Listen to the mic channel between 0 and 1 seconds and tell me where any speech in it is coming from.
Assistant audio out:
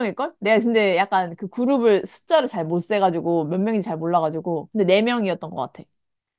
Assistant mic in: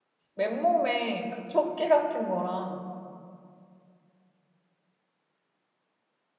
user only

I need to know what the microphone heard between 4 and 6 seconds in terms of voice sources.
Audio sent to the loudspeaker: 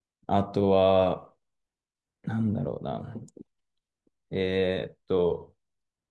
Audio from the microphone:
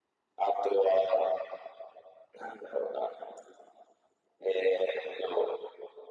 echo only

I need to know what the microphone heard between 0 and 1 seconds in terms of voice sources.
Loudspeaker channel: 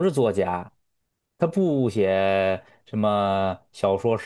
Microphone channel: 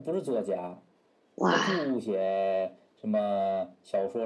echo only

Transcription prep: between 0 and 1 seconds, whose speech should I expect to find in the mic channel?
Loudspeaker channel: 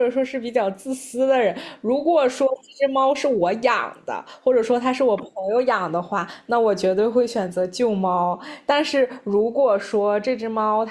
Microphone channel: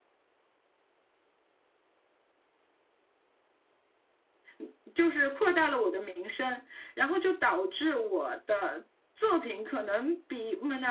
neither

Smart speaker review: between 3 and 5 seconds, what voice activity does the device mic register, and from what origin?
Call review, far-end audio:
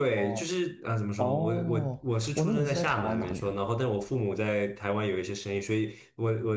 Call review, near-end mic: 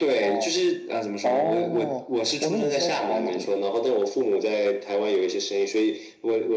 echo only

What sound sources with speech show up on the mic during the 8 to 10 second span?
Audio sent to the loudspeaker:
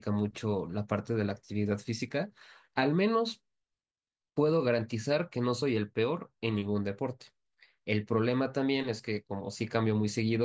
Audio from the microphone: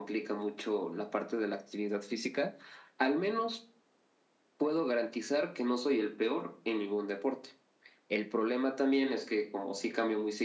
echo only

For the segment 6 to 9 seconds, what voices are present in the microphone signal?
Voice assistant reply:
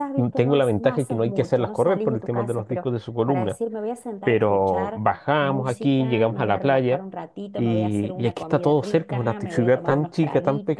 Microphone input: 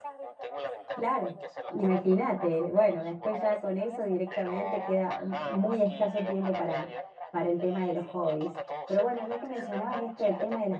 both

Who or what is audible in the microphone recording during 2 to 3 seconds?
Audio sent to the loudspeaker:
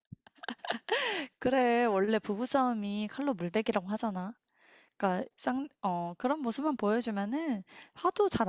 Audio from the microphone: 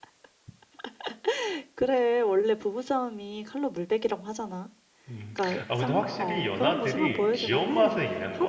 echo only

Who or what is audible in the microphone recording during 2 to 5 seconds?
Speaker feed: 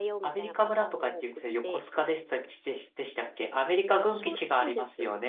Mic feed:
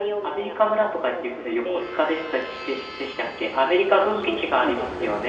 echo only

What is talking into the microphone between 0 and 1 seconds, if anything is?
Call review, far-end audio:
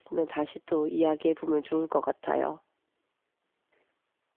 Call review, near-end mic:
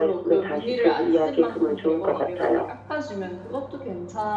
both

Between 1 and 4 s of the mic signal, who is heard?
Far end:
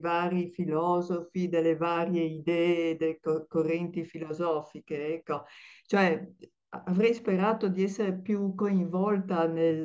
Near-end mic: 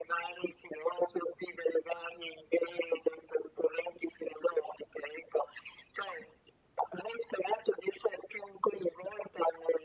echo only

